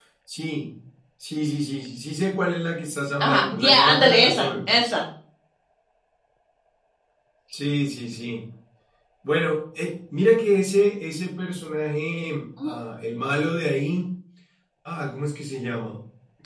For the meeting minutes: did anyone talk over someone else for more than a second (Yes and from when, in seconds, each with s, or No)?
Yes, from 3.2 s